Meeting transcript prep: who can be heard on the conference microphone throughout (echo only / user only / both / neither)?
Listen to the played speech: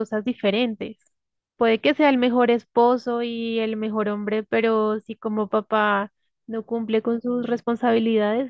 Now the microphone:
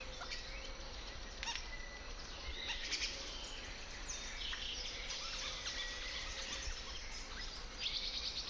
neither